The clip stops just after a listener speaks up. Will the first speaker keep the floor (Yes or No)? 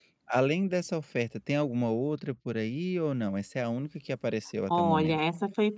No